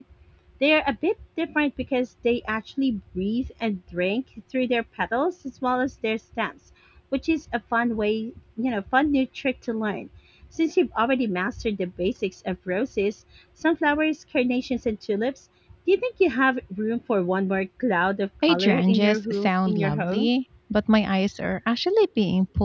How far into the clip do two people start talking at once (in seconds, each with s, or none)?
18.4 s